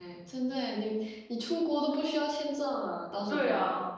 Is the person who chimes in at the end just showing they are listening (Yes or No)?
No